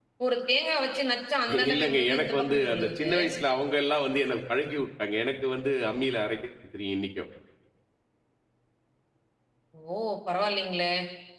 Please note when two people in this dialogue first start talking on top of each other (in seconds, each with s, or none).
1.5 s